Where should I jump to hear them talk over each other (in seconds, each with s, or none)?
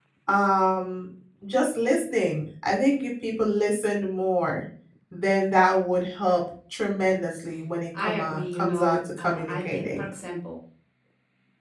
7.9 s